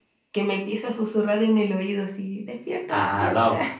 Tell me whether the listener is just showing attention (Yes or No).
No